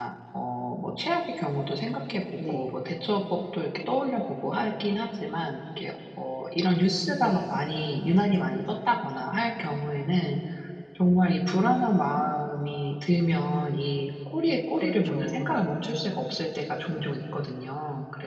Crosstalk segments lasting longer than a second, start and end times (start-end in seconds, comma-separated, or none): 14.5-15.7